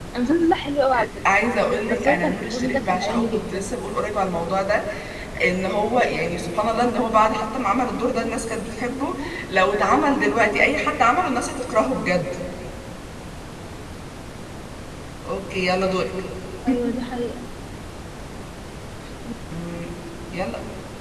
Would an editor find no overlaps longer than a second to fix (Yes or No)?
No